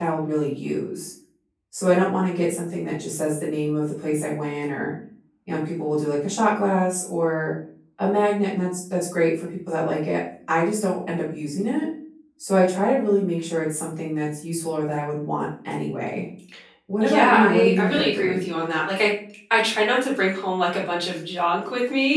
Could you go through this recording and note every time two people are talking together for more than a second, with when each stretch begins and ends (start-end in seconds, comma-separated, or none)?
17.0-18.5